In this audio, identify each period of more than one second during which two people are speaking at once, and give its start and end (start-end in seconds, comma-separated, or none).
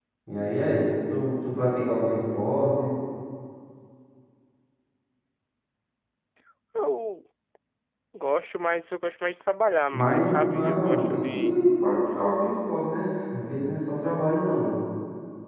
9.9-11.6